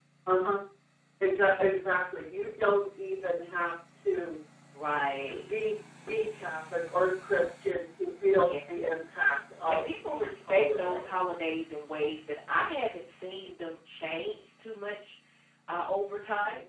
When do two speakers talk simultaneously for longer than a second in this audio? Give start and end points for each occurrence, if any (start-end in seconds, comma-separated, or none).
9.7-11.1